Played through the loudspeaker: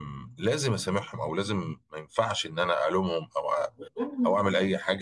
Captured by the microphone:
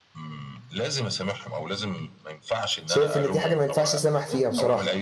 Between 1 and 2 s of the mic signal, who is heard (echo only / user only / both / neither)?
echo only